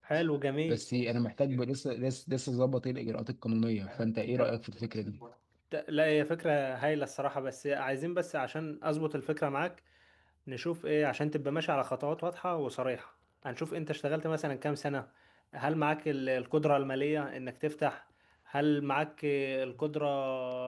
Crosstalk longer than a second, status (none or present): none